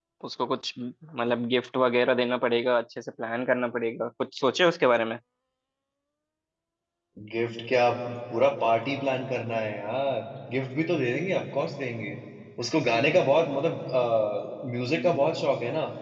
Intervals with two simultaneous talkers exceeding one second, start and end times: none

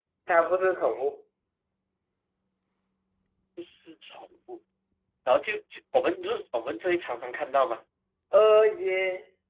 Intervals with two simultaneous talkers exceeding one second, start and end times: none

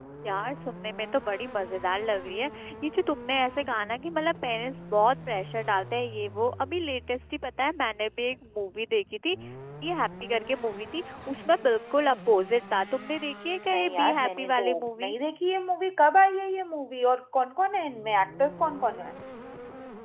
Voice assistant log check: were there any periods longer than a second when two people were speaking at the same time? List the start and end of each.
13.7-15.1

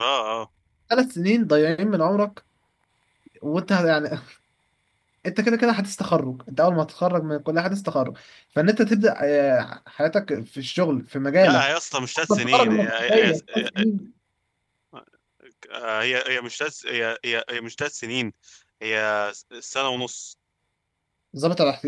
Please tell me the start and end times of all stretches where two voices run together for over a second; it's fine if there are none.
12.3-13.8

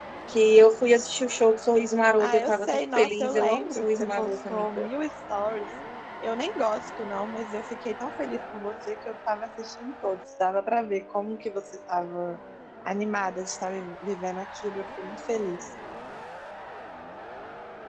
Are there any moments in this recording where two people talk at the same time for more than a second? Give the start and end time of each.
2.2-4.9

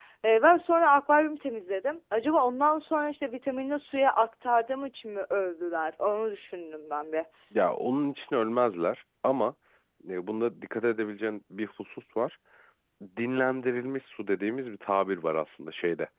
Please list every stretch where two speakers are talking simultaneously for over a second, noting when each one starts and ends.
none

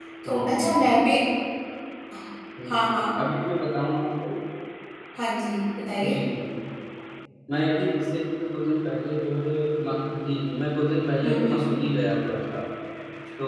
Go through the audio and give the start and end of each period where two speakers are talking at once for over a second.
none

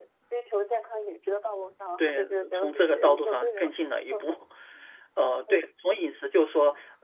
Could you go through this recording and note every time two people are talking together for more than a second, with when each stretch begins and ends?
2.0-3.7

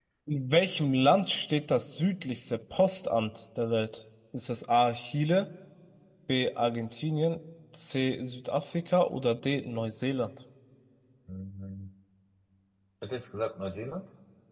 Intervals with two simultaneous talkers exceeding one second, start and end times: none

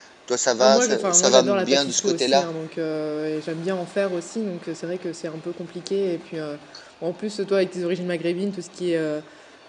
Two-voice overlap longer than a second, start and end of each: 0.6-2.5

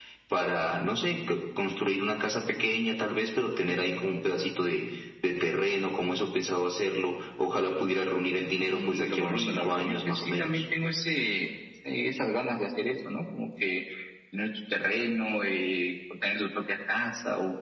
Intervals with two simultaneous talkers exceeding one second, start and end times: 8.7-10.6

